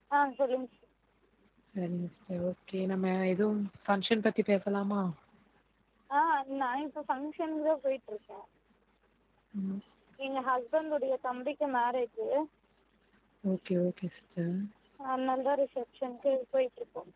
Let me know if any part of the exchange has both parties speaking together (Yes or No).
No